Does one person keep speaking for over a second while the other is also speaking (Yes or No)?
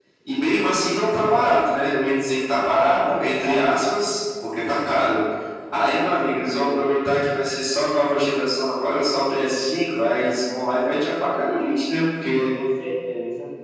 Yes